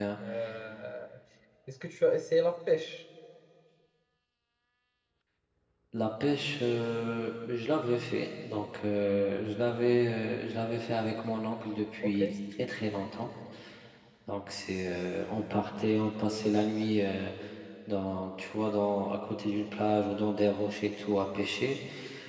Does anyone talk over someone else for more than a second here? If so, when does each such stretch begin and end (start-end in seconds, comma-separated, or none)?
none